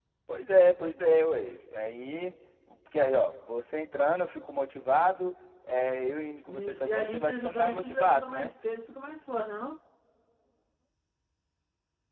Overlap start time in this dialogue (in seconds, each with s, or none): 6.5 s